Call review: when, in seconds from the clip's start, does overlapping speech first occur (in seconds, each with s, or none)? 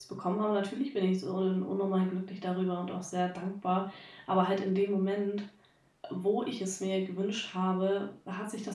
none